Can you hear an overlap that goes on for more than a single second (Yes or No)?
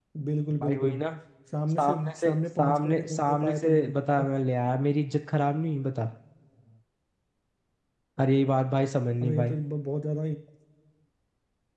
Yes